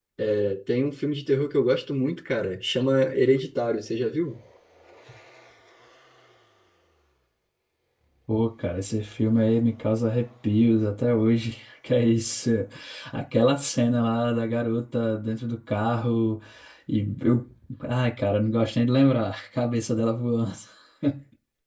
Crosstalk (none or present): none